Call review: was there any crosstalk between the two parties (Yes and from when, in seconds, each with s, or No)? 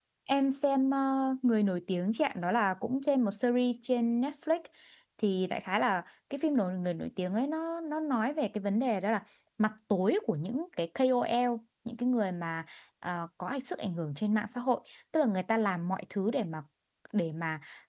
No